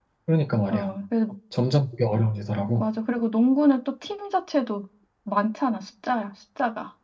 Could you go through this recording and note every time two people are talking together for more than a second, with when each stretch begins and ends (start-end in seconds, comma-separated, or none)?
none